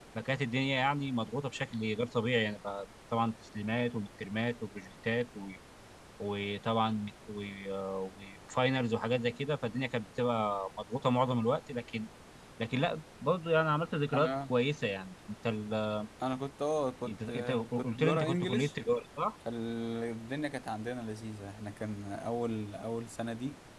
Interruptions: present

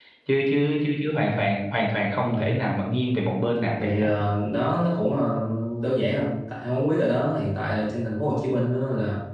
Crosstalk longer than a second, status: none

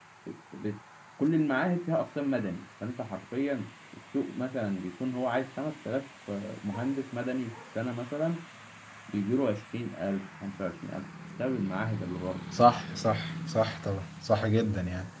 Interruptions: none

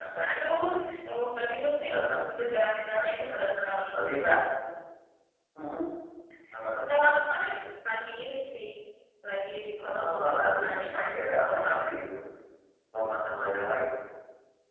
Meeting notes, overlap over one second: present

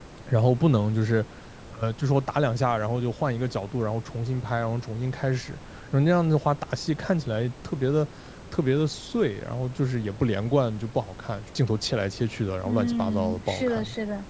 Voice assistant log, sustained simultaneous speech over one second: present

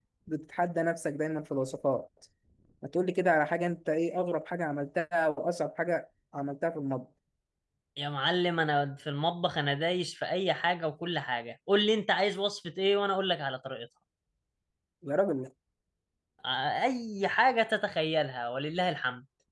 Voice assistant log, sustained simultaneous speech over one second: none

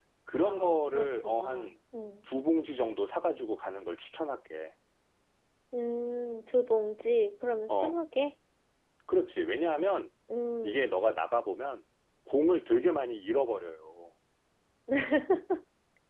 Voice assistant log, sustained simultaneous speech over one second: present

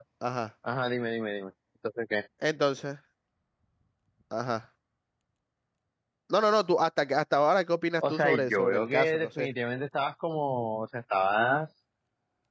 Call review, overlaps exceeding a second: present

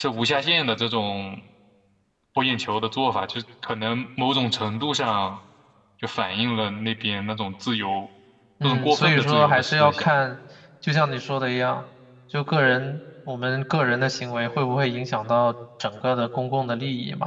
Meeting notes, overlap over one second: present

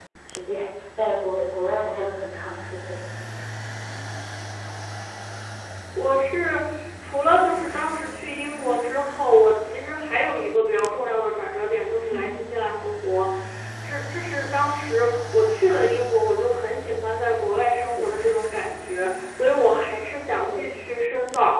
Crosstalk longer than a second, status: none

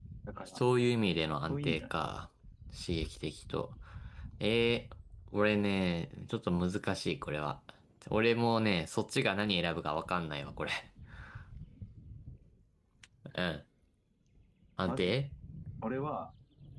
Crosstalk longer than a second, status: none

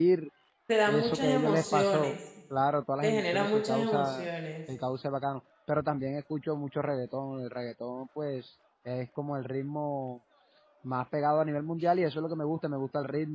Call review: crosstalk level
present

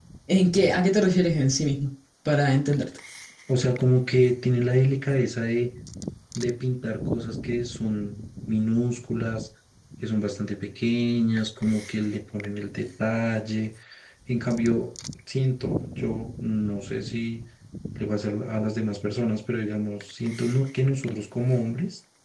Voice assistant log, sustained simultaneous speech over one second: none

